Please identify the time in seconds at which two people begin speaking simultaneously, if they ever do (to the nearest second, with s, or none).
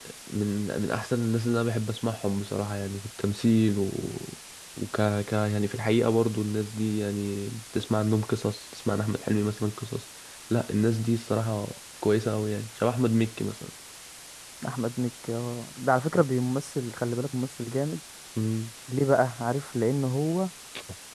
none